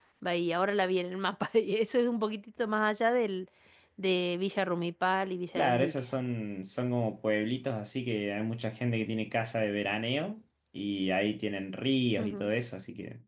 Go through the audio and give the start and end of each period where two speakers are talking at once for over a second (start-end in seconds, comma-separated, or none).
none